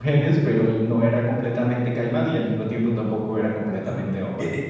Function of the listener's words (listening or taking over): taking over